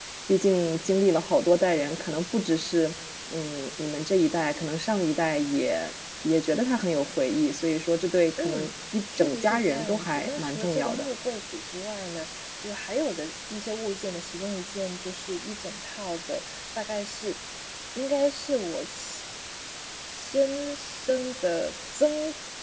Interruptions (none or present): present